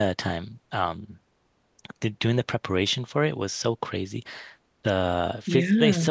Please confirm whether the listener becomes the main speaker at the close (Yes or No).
No